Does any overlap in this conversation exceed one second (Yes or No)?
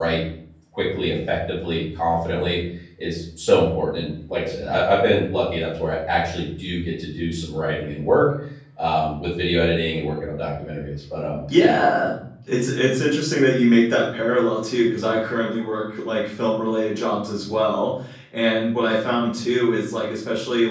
No